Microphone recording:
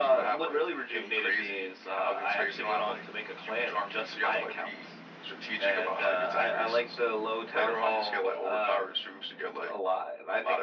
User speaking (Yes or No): No